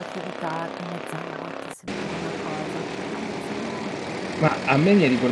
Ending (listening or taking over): taking over